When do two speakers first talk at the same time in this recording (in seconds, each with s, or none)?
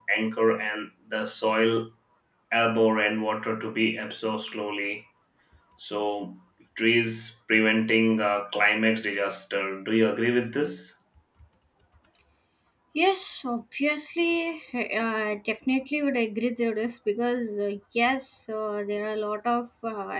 none